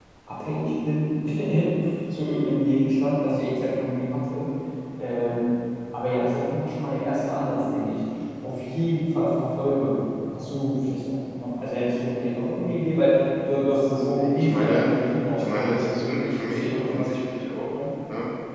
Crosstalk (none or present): present